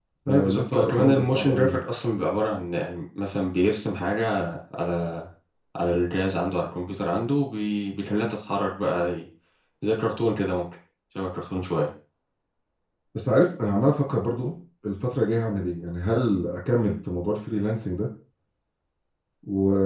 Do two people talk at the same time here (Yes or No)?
Yes